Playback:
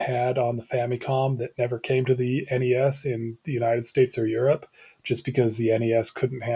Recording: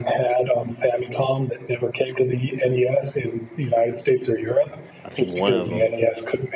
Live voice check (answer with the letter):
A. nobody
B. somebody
B